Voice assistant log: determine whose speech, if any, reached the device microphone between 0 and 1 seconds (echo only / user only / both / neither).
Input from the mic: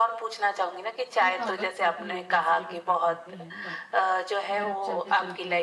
echo only